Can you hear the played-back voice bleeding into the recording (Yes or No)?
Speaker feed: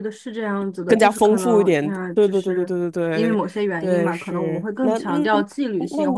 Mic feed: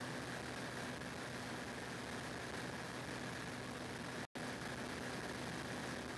No